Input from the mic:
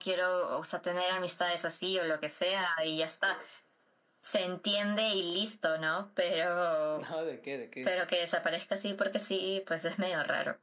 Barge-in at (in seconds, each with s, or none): 6.9 s